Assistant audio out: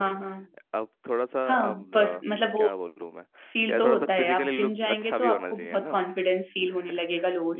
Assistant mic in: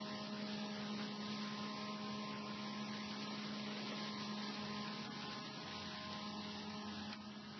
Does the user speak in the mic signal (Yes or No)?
No